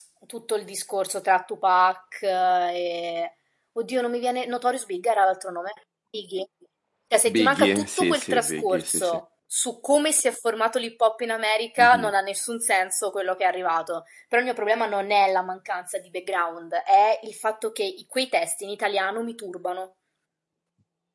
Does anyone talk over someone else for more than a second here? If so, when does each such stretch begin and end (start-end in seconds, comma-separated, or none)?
7.3-9.2